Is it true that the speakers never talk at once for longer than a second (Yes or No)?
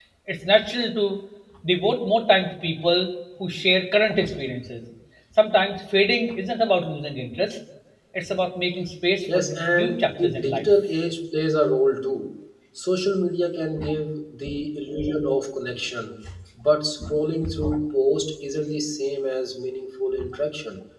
No